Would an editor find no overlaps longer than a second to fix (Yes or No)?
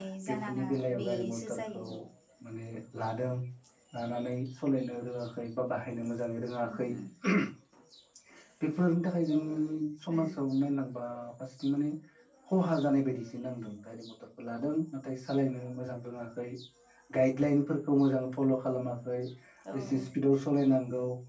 No